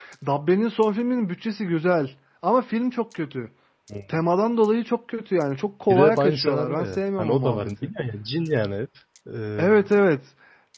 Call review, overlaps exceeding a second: present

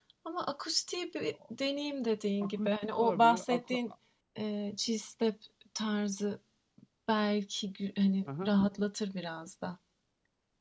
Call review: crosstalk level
present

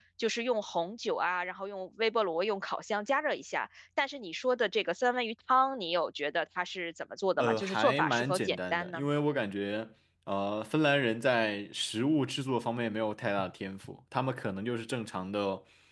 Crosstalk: present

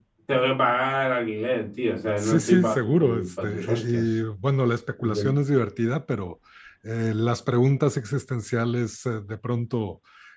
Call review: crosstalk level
present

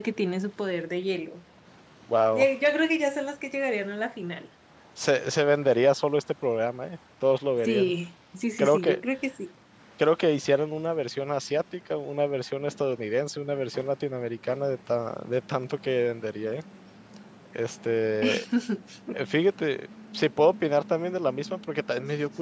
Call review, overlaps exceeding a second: none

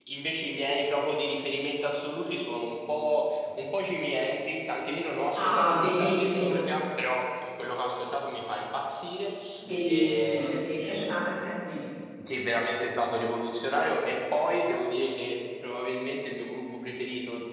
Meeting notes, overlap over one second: present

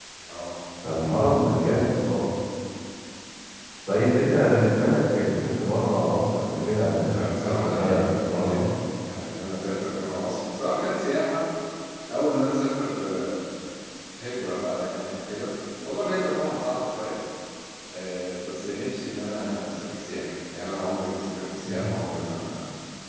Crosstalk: present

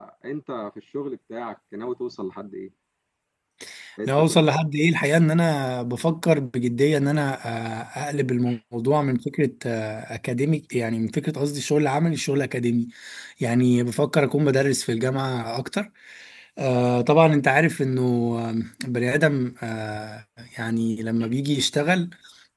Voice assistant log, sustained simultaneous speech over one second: none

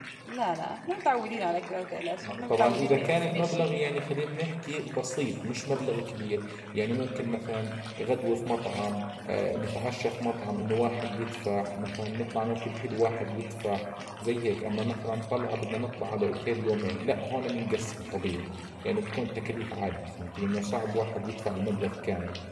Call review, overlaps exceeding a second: present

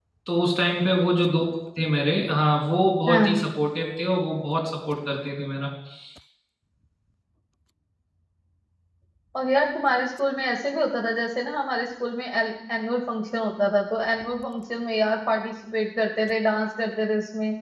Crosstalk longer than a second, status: none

